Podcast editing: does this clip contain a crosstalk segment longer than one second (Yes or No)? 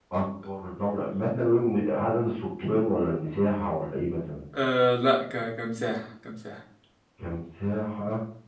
No